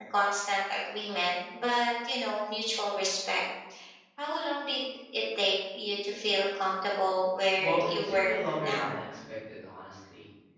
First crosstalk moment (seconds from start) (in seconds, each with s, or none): 7.6 s